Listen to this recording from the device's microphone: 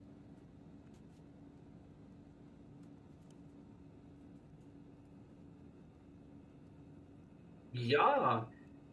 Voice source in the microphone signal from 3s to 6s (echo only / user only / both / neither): neither